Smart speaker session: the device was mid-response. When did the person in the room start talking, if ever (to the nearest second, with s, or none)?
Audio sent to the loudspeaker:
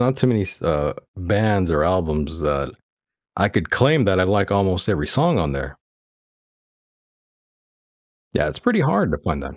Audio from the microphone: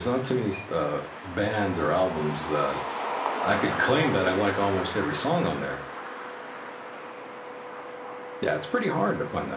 none